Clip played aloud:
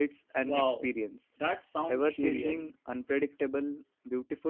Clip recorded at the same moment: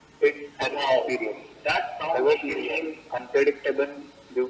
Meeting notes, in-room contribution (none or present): none